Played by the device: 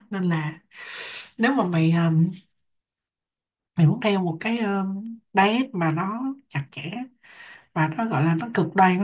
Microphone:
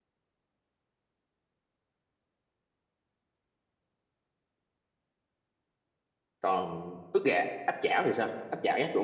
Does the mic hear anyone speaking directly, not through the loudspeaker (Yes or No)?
Yes